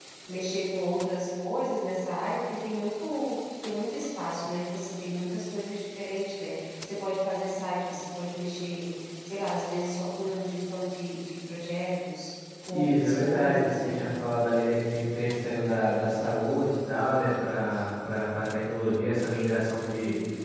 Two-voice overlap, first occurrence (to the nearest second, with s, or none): 13 s